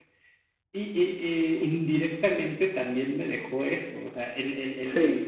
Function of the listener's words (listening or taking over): listening